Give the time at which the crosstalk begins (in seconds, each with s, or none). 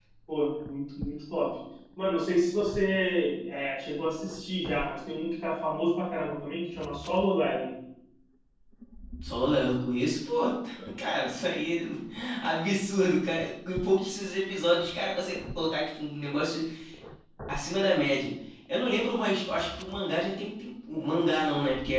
none